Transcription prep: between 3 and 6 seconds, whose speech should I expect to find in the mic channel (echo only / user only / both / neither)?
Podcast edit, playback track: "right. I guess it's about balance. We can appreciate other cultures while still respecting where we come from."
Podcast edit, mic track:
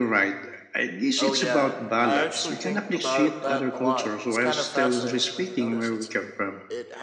both